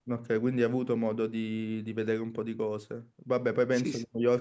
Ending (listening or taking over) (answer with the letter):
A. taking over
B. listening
B